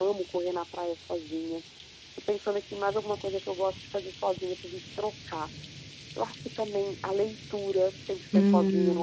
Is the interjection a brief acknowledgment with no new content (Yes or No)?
No